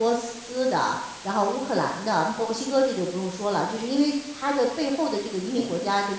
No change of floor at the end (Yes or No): Yes